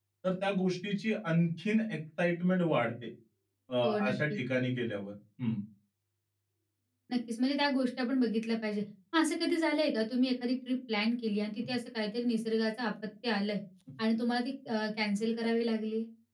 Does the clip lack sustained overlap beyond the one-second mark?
Yes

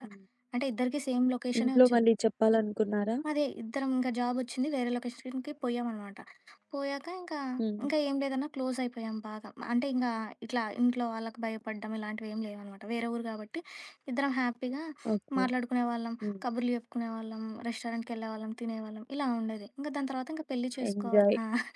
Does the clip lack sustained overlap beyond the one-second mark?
Yes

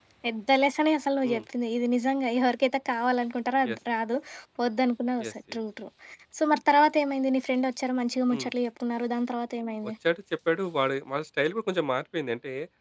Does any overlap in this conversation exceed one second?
No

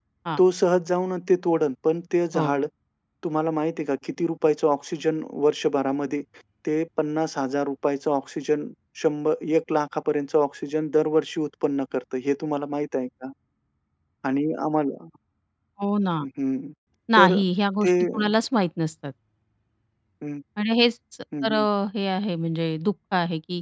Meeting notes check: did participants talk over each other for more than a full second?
No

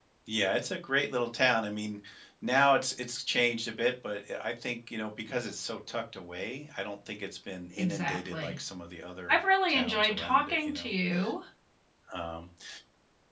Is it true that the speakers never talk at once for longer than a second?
No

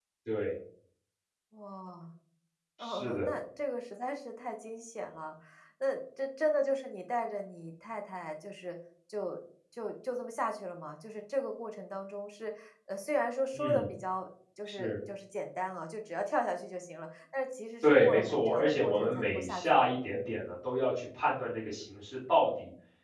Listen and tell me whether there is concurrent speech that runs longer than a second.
Yes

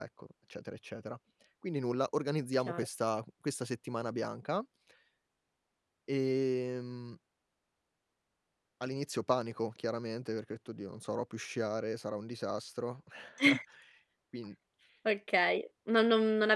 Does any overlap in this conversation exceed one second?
No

